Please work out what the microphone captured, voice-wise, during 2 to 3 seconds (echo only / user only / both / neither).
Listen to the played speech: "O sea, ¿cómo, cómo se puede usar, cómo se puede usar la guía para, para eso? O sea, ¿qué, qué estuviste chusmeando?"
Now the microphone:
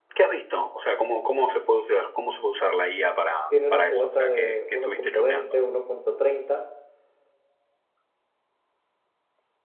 echo only